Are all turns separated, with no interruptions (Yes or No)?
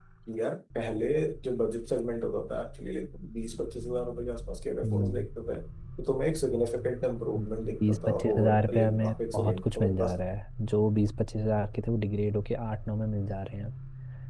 No